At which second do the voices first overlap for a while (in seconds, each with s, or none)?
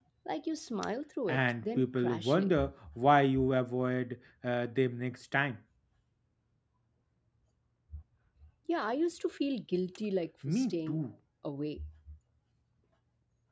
1.3 s